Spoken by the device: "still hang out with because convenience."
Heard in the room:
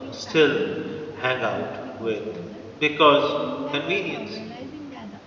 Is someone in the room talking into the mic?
Yes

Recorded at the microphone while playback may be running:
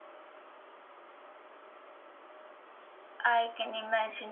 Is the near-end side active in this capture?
Yes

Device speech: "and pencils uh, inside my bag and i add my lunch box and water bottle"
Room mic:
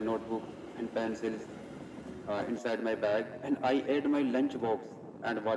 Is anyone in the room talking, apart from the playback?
No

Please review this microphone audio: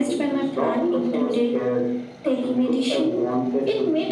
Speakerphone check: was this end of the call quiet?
Yes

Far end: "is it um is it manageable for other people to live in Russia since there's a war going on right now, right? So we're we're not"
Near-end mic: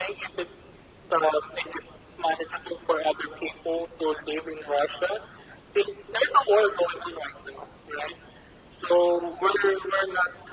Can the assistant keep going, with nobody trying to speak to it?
Yes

